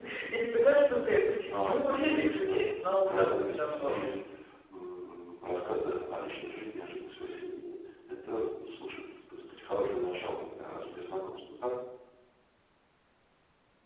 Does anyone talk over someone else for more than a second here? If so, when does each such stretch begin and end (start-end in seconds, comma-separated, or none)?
1.5-4.0